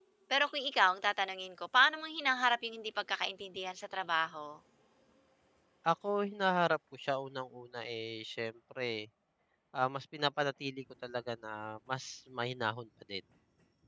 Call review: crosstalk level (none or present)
none